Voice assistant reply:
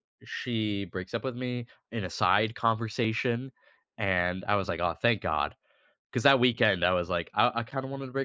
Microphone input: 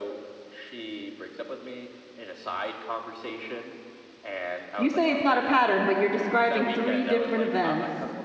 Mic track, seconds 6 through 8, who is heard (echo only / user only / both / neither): both